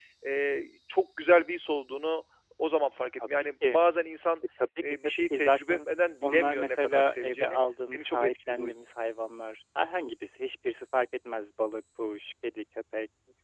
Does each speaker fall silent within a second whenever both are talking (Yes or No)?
No